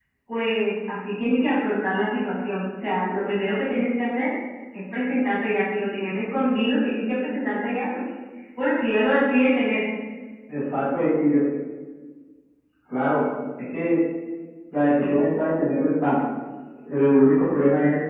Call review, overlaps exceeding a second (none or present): none